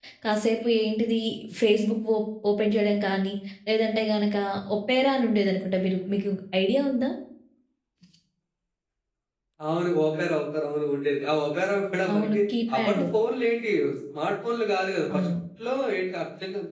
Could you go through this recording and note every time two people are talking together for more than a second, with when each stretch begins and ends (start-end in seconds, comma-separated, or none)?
none